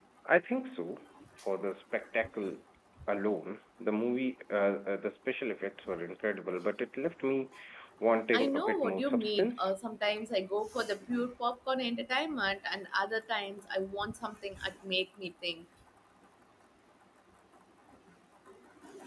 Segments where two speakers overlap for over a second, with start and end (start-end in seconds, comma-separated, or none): 8.3-9.7